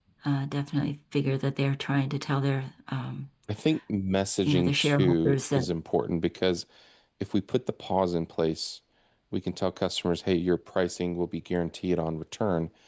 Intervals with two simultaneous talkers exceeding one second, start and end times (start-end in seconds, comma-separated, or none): 4.5-5.7